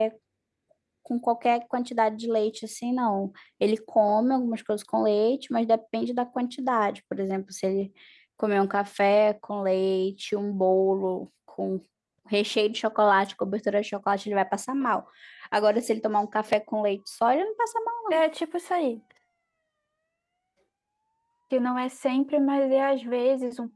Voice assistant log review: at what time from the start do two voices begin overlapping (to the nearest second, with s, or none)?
none